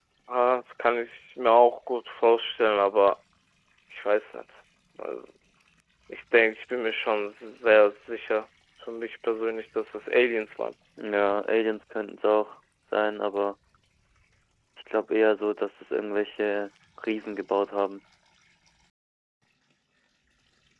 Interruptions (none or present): none